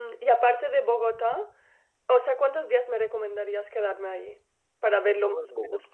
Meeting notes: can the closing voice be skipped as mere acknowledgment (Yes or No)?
No